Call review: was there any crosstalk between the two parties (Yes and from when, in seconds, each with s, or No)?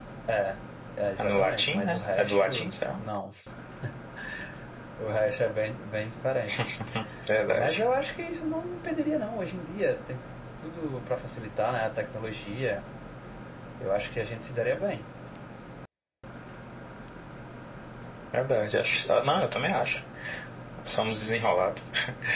Yes, from 1.2 s